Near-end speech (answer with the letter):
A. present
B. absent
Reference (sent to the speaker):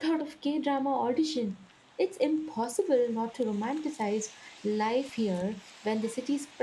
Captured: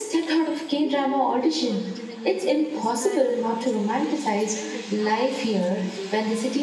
A